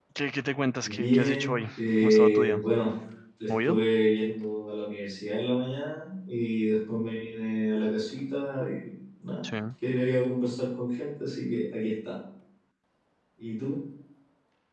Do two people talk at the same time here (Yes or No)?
Yes